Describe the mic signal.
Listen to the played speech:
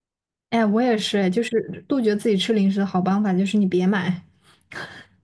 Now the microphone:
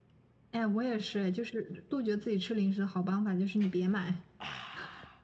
echo only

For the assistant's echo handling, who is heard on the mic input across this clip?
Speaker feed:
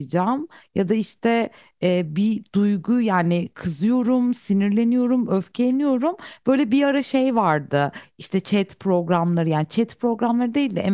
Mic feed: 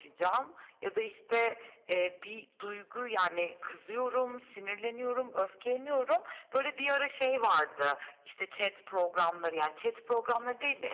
echo only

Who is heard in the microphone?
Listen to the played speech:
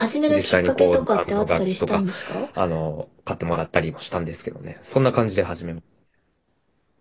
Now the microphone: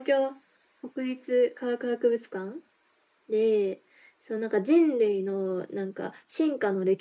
user only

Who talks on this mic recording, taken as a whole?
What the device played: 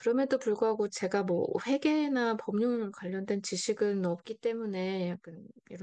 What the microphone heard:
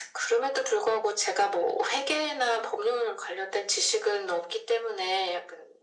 echo only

